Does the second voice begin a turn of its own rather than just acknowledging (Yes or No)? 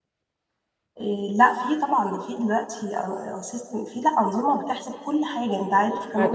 Yes